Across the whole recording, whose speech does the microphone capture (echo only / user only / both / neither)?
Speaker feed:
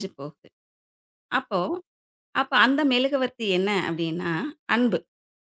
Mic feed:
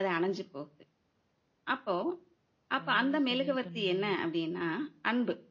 both